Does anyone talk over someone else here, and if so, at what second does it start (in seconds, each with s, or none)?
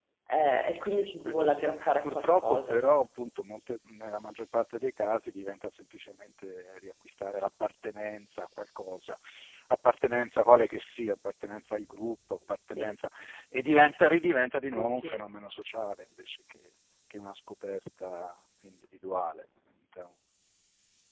0.8 s